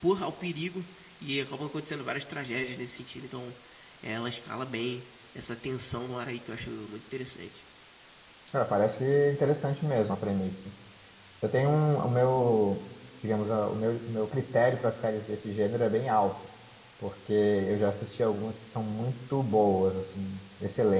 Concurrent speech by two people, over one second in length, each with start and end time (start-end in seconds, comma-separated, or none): none